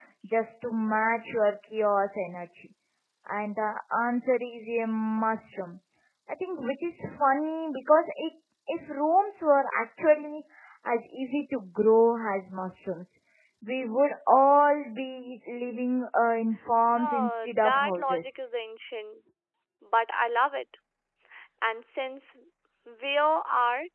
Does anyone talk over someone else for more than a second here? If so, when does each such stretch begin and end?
17.0-18.4

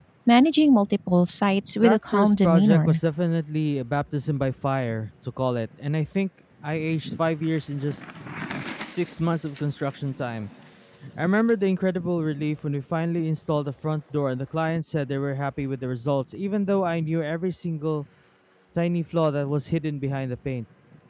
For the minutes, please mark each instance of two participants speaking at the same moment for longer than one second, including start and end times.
1.8-3.0

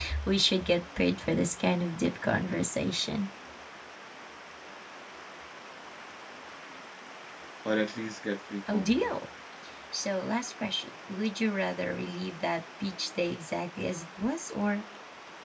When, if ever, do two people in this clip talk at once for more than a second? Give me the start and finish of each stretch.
none

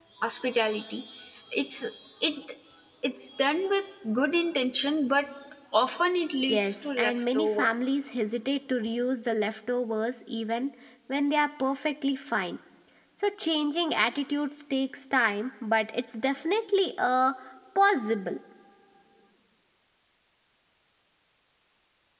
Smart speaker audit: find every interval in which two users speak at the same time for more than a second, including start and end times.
6.5-7.7

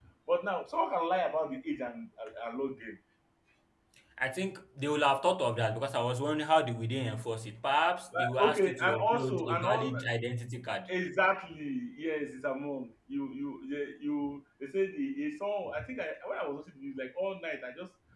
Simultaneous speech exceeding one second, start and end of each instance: 8.2-10.0

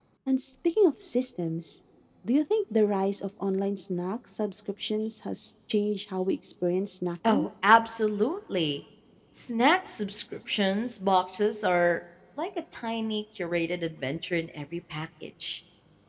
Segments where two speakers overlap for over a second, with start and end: none

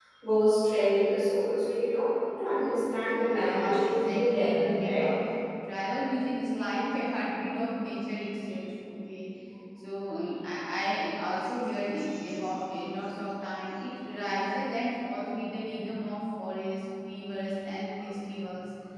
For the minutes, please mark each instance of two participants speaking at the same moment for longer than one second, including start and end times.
3.2-5.1

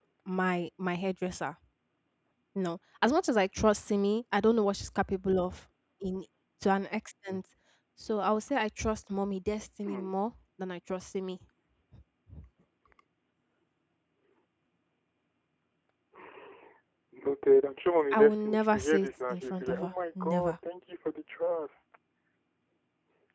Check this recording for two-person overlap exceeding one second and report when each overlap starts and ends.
18.1-20.6

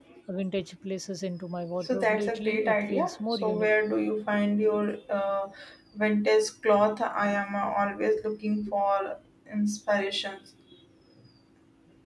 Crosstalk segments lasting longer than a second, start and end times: 1.8-3.7

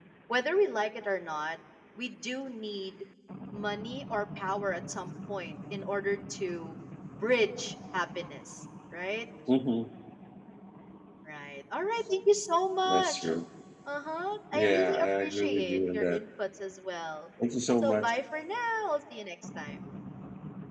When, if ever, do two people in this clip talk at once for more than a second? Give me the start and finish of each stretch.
14.5-16.2

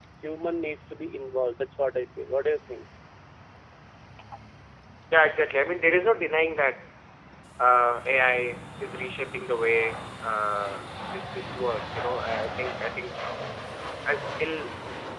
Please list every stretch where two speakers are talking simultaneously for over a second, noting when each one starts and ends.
none

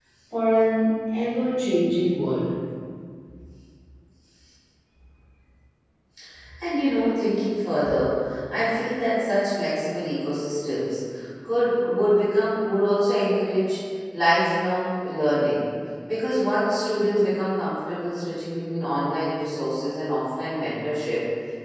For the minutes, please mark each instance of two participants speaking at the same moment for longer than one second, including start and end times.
none

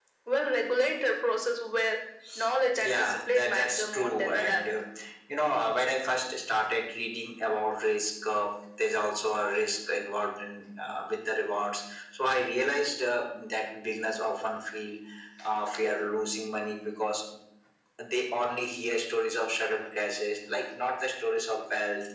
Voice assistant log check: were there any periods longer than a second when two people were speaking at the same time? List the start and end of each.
2.8-4.6

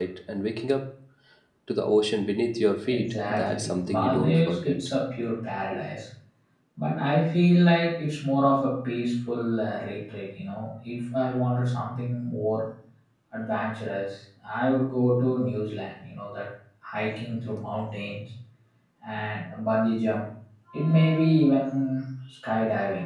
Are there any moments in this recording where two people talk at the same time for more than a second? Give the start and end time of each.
2.9-4.8

